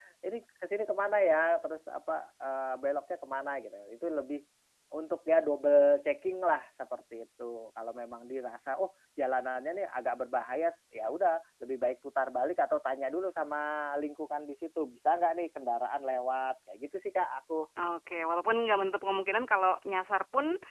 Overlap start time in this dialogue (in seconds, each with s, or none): none